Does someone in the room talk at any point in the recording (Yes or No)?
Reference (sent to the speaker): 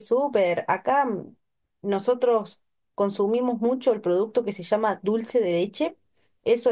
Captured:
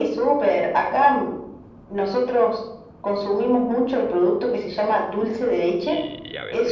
Yes